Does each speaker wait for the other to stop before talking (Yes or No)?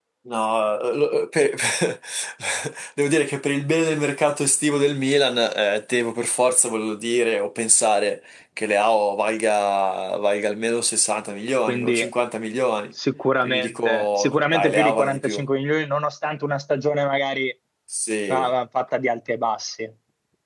No